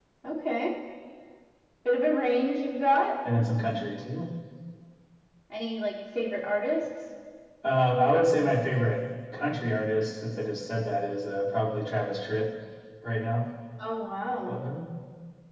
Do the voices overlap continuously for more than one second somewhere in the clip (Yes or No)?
No